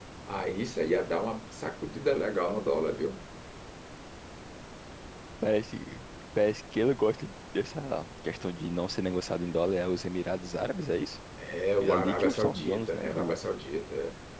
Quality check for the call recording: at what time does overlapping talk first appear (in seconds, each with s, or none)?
11.8 s